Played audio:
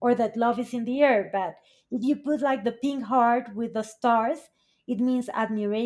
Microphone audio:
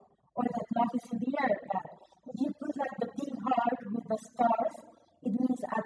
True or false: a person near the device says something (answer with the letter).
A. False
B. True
A